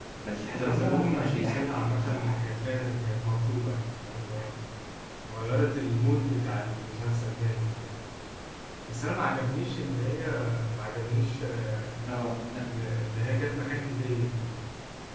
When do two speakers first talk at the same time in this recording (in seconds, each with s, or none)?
0.5 s